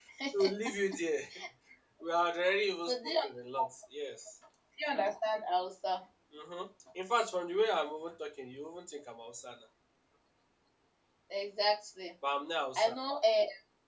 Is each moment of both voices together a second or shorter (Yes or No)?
Yes